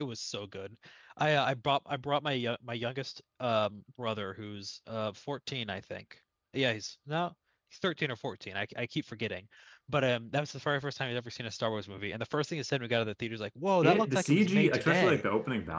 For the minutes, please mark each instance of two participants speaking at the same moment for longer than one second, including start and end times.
13.8-15.2

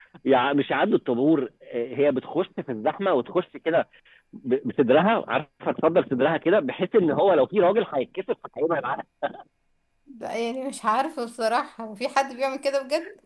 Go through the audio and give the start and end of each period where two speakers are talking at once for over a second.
none

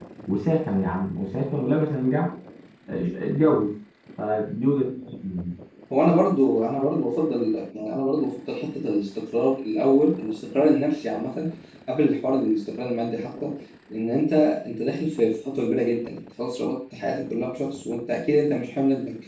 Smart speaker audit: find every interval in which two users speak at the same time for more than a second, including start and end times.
none

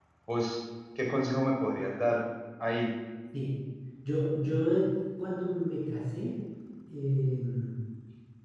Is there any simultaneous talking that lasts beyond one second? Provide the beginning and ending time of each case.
none

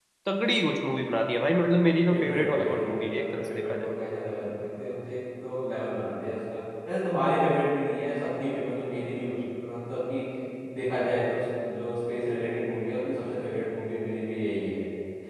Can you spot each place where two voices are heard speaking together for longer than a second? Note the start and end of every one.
2.1-3.9

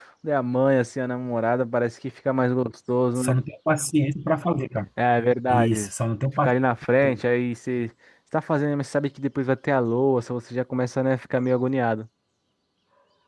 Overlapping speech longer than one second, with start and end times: none

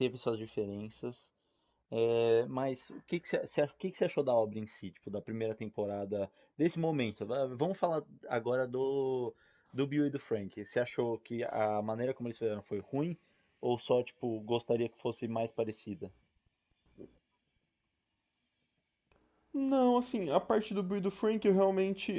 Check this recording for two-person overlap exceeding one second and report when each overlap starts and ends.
none

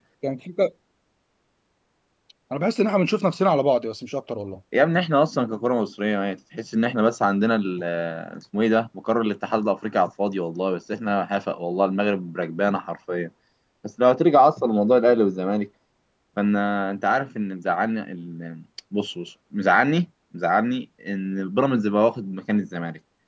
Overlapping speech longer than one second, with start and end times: none

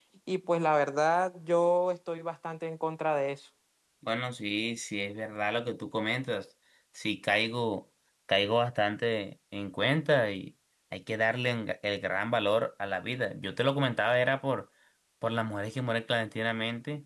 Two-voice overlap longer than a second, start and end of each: none

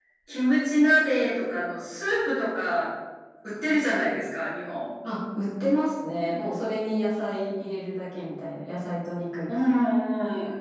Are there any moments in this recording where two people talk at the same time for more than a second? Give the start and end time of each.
none

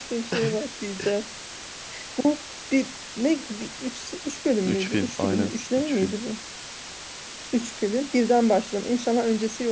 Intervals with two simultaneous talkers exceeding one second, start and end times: 4.7-6.2

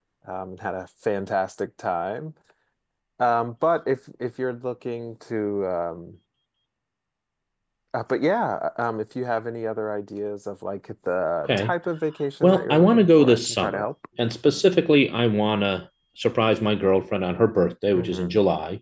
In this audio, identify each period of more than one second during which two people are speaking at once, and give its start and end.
12.4-13.8

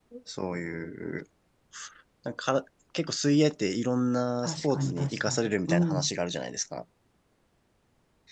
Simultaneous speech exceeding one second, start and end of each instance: 4.4-6.1

